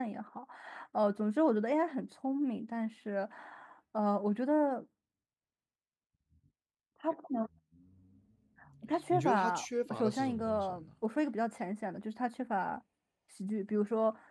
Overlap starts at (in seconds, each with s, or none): 9.1 s